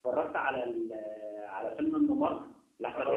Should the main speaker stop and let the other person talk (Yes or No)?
Yes